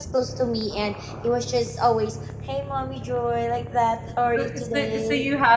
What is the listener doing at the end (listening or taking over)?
taking over